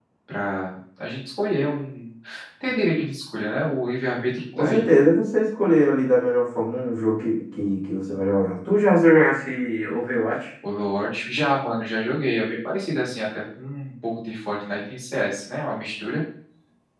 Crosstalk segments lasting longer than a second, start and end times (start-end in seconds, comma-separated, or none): none